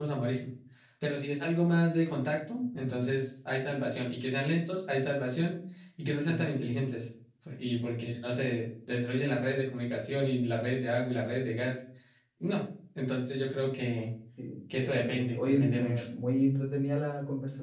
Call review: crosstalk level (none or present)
present